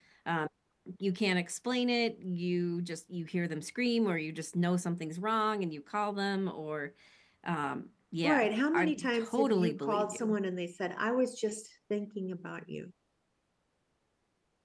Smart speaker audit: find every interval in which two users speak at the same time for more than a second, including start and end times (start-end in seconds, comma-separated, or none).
8.2-10.4